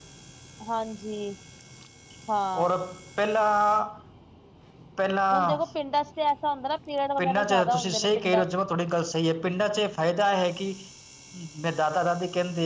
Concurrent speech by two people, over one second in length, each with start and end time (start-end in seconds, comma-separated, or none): 7.2-8.4